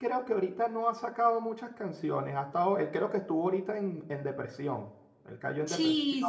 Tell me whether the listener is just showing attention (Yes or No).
No